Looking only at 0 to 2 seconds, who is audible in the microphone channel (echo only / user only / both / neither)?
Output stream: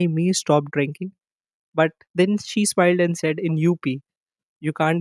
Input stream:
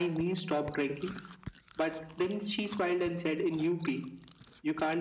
echo only